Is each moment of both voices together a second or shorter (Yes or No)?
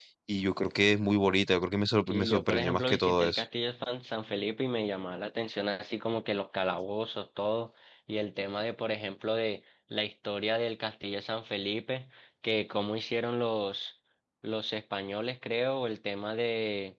No